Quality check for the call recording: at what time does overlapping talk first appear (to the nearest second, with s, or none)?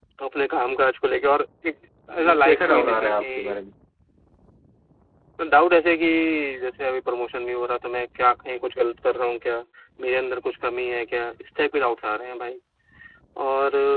2 s